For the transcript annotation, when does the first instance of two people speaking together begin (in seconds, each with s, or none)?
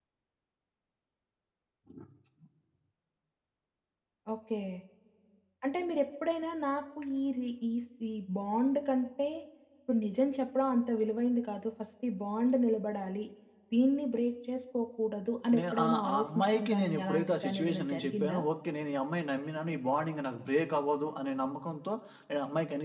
15.5 s